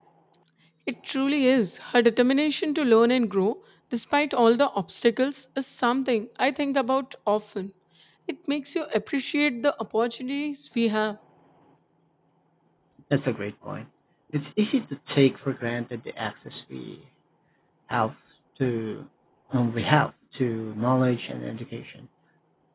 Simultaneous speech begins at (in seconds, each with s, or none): none